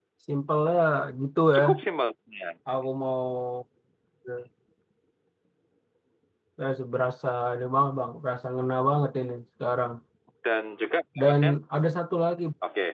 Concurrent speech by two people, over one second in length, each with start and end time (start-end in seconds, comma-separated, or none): none